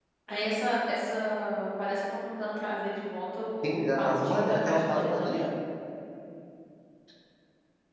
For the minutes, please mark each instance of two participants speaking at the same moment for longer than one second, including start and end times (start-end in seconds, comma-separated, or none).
3.6-5.4